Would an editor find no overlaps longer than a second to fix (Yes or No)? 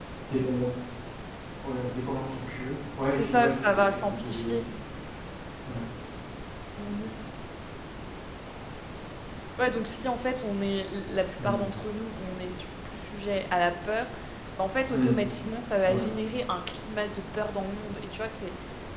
No